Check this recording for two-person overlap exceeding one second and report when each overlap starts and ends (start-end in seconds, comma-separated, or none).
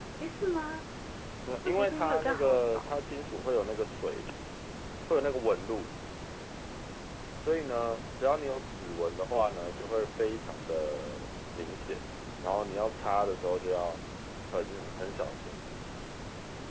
1.6-2.9